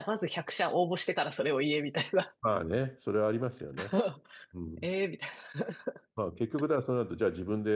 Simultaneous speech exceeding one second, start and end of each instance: none

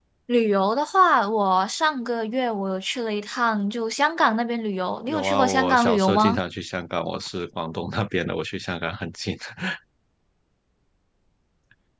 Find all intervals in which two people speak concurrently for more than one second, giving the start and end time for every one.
5.1-6.4

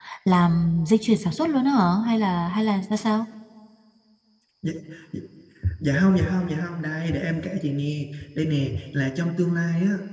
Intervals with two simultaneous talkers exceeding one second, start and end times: none

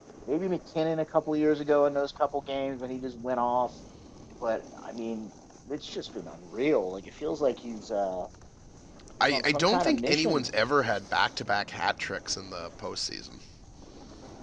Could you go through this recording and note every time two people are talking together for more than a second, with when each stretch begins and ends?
9.2-10.4

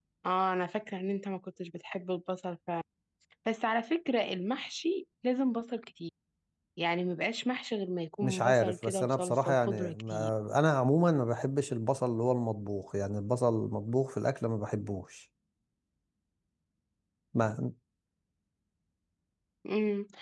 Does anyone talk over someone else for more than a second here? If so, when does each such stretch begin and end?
8.2-10.3

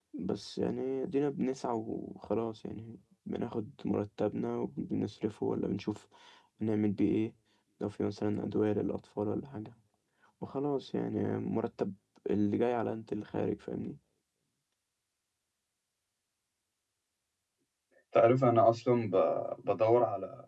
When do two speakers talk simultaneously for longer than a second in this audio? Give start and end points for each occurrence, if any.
none

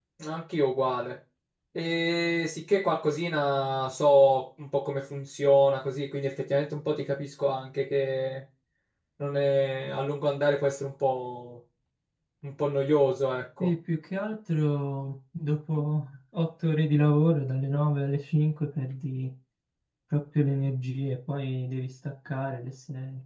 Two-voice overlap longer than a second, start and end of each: none

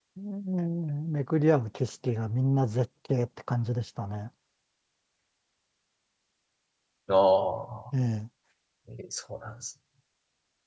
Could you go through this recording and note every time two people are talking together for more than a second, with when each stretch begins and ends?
none

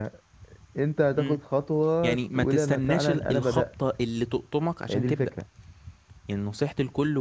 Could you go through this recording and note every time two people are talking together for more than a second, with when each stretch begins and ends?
2.0-3.6

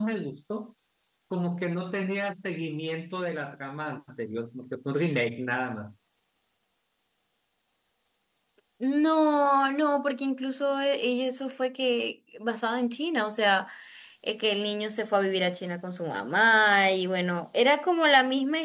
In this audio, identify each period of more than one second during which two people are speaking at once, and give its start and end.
none

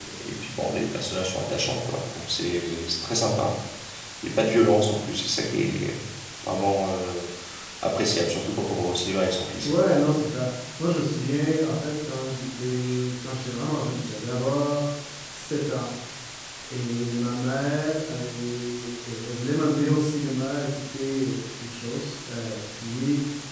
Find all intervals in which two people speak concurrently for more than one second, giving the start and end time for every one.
none

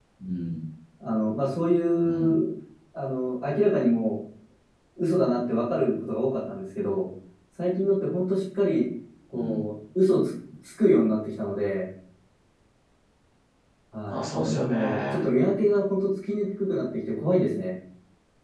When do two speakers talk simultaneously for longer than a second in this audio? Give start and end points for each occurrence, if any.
14.1-15.3

